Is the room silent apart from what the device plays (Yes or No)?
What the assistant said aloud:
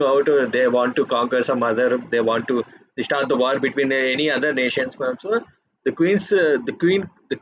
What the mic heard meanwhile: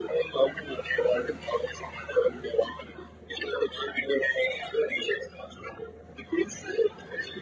Yes